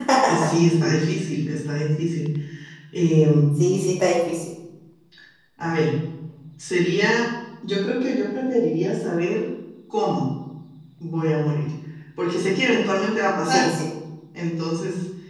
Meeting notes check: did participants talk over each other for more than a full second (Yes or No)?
No